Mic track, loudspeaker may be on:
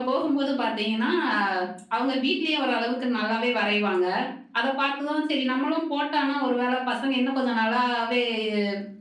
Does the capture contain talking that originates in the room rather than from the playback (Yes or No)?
No